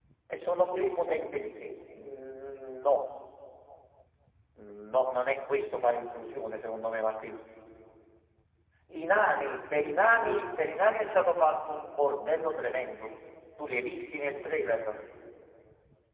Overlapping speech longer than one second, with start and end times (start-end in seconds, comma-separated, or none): 9.2-10.6